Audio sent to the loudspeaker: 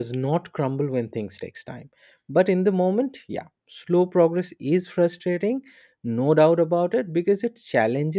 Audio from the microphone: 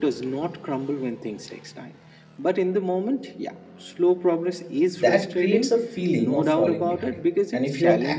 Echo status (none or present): present